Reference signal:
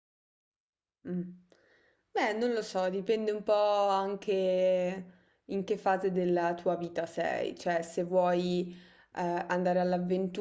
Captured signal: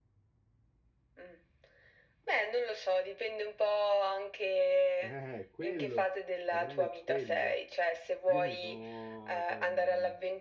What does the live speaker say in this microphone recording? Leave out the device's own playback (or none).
Eh, quello, è proprio quello. Io mi sono, cioè, mm,